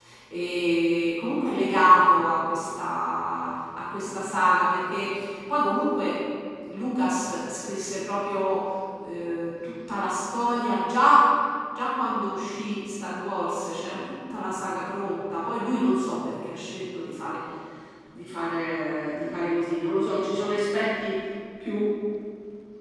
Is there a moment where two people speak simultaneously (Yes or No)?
No